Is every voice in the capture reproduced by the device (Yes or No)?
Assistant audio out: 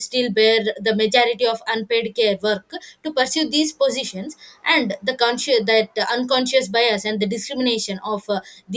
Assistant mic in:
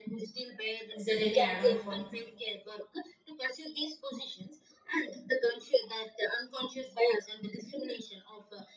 No